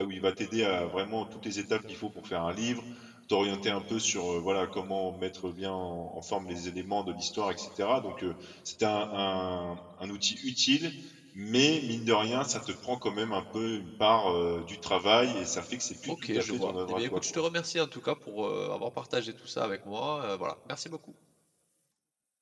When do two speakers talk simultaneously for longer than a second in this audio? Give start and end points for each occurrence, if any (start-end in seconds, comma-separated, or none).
16.0-17.4